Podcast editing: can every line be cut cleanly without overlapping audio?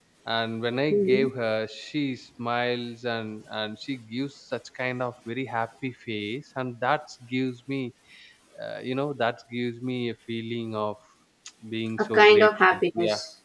No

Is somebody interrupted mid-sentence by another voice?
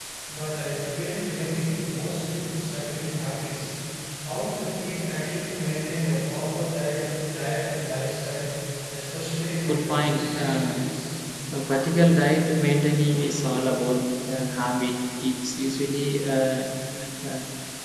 Yes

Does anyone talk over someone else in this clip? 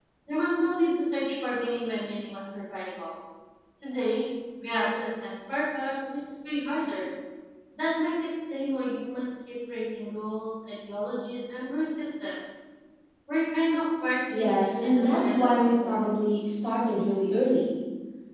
Yes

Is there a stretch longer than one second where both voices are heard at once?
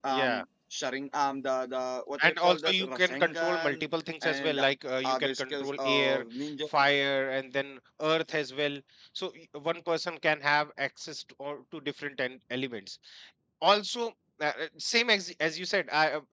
Yes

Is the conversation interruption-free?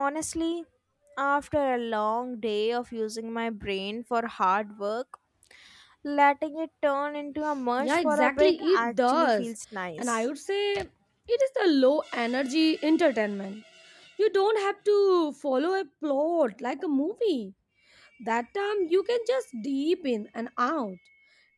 No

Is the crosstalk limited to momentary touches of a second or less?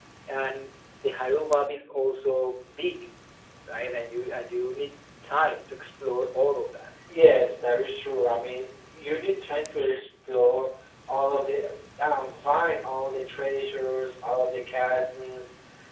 Yes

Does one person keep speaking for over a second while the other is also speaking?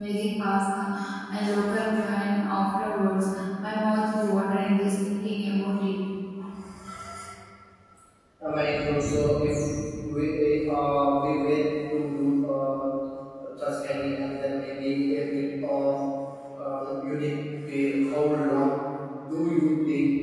No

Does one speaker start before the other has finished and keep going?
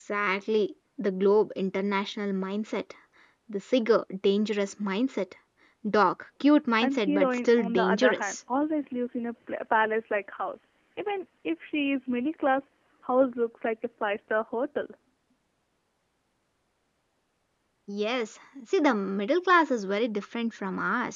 Yes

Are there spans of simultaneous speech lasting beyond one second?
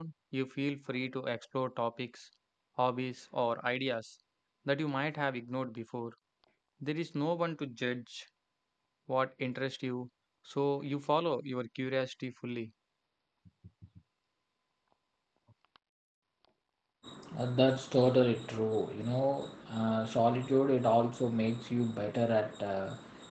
No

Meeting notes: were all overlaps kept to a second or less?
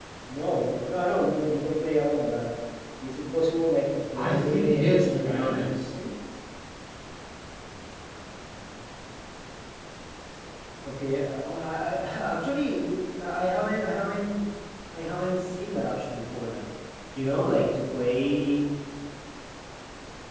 No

